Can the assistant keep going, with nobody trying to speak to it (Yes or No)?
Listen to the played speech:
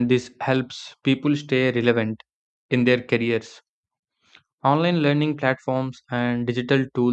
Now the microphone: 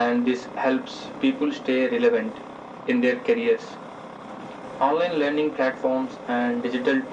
Yes